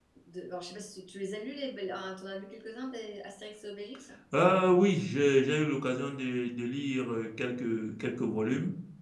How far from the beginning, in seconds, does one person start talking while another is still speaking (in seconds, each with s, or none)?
none